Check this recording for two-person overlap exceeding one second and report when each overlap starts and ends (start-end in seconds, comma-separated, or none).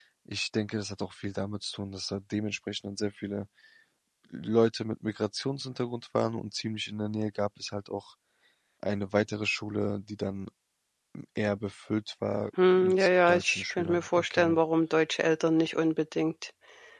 12.8-14.6